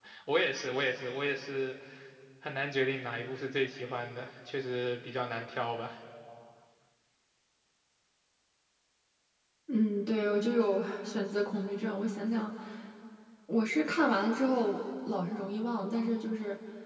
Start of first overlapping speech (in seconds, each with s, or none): none